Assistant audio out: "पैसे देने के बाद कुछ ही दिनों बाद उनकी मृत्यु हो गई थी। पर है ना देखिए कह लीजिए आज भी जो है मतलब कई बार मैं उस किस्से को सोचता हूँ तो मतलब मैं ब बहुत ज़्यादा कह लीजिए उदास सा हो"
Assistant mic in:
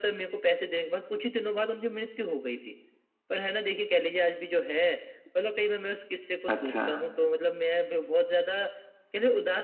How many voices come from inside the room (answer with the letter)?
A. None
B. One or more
B